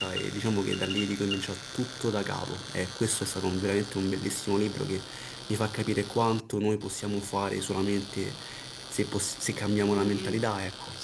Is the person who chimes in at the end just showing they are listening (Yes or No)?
No